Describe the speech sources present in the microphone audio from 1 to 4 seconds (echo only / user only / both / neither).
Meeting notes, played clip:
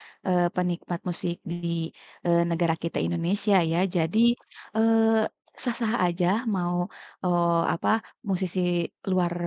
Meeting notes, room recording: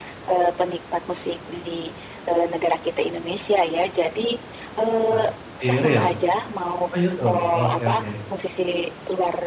echo only